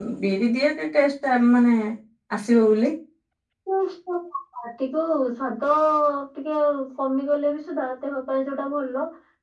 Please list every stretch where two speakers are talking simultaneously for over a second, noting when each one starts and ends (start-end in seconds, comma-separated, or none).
none